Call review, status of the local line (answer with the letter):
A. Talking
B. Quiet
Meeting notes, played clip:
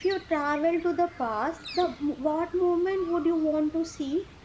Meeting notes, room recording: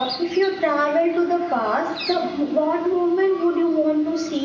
B